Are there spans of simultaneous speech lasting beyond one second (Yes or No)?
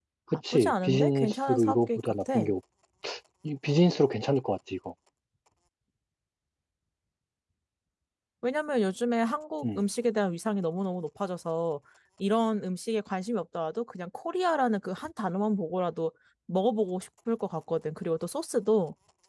Yes